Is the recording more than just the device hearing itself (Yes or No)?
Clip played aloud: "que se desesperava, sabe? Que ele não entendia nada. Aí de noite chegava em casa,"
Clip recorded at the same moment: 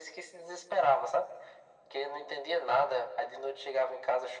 No